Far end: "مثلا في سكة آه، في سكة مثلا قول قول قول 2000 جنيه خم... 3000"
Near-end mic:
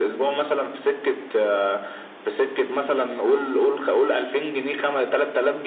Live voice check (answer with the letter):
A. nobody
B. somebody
A